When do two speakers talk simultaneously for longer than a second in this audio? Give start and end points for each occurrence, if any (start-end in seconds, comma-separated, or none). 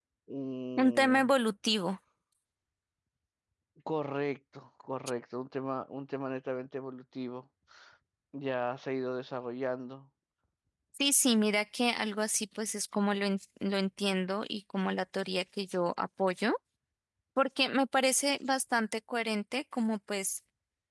none